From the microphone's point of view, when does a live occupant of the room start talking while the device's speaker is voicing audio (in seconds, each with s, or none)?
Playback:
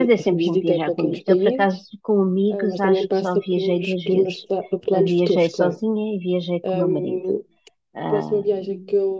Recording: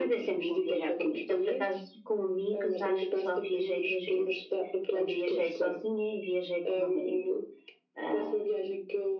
none